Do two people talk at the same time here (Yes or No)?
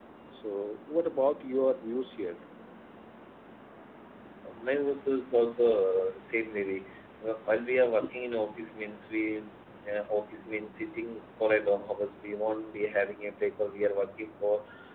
No